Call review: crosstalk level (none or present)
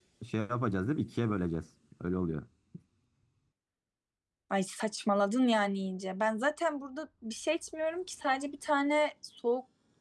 none